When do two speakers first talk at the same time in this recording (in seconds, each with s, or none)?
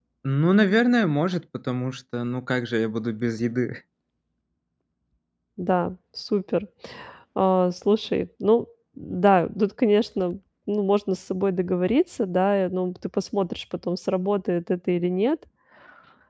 none